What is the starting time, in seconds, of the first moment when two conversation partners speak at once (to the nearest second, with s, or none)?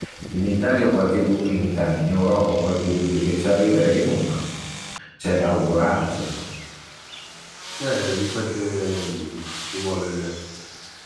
none